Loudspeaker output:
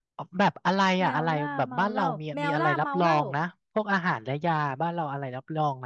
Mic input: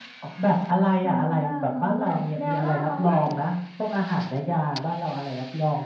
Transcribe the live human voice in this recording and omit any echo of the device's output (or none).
none